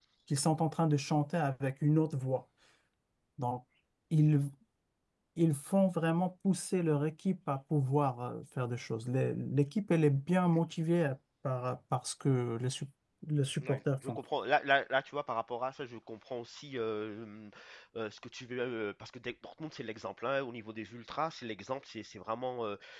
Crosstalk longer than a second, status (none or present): none